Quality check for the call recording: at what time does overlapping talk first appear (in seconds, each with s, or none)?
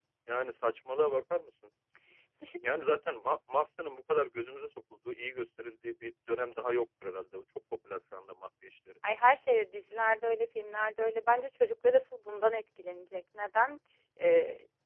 none